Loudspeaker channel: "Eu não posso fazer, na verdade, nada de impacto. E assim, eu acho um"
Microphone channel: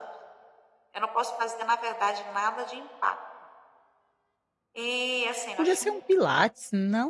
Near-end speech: present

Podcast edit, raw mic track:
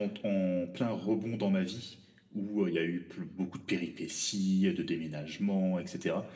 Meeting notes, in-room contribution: none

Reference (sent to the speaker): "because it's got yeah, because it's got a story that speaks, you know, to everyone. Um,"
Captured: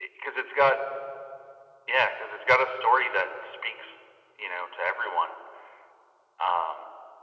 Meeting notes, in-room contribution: none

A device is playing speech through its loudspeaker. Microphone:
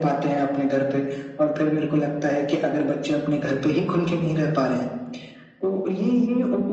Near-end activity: none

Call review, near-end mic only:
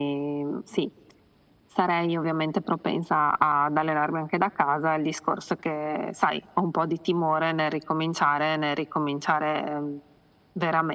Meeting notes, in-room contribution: none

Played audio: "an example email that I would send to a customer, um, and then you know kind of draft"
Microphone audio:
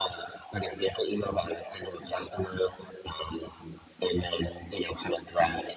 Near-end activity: none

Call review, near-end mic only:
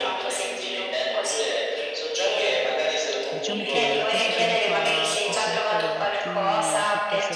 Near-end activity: present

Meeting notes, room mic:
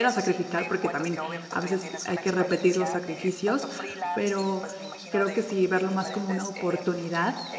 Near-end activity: present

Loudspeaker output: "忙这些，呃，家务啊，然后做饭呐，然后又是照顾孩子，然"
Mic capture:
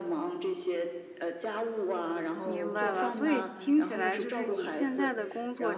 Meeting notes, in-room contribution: present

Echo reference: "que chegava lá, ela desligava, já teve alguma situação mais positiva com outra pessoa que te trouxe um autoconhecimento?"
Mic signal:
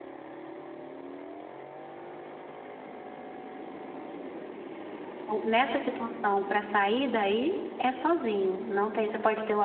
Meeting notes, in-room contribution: present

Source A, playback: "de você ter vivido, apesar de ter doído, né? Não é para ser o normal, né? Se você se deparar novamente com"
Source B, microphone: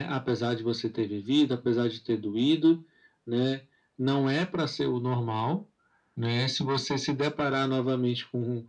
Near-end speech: none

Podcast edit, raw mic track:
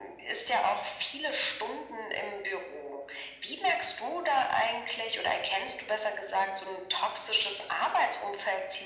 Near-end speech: none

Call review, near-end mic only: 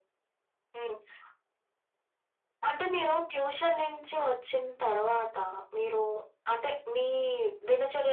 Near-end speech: none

